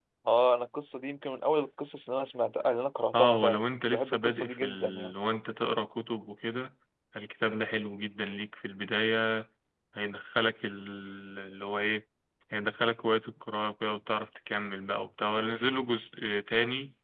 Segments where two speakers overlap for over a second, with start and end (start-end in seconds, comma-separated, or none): 3.1-5.1